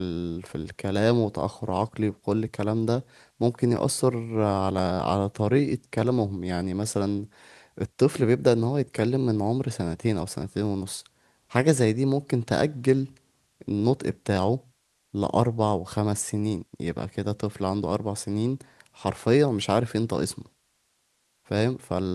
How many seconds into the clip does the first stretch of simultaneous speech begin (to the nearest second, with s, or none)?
none